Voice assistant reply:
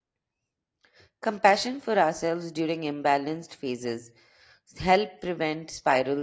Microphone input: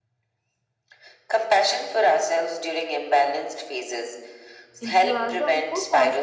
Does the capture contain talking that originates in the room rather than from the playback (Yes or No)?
Yes